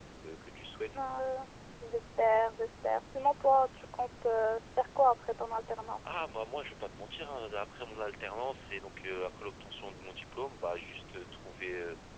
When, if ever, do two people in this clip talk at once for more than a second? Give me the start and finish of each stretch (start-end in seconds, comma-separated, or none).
none